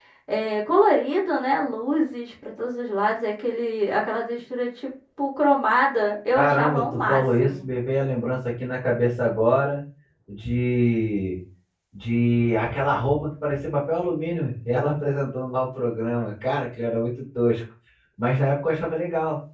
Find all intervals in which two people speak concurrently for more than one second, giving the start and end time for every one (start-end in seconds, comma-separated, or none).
6.3-7.6